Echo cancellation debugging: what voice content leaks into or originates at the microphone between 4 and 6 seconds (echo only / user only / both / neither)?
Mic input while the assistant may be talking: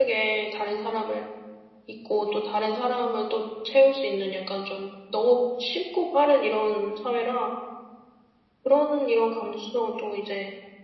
user only